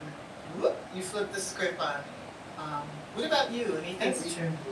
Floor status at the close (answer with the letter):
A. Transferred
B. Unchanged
A